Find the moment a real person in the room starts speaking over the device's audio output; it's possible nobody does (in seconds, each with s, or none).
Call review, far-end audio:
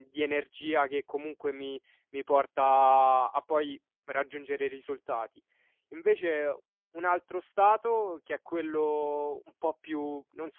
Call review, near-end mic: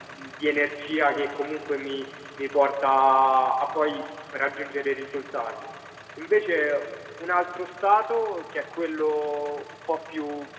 none